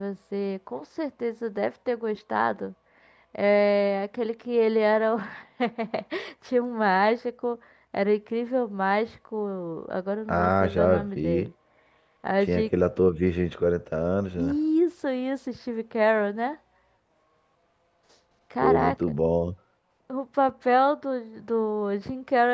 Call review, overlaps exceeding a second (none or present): present